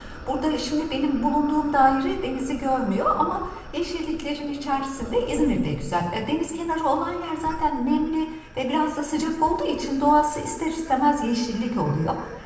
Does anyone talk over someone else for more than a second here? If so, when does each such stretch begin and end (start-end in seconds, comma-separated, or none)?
none